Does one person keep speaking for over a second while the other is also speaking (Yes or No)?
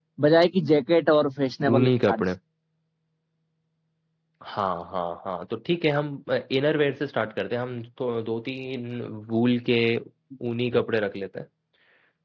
No